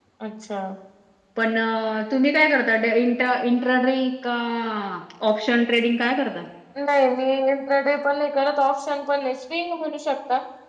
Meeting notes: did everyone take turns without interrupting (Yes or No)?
Yes